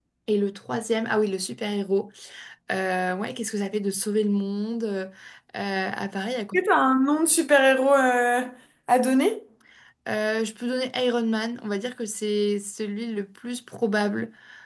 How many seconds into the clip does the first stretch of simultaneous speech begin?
none

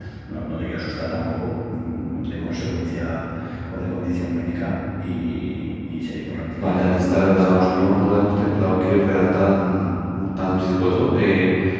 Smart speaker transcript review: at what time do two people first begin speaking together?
7 s

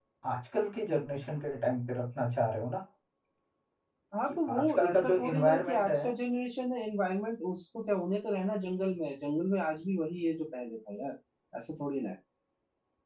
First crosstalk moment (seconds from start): 4 s

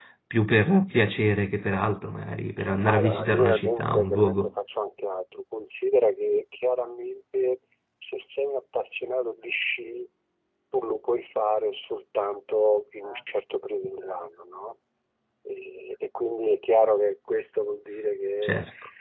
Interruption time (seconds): 3 s

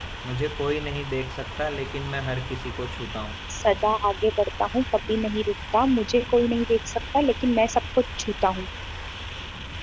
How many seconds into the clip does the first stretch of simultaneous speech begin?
none

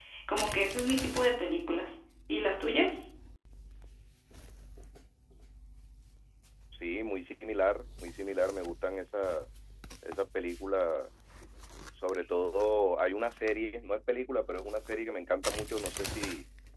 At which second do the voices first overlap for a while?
none

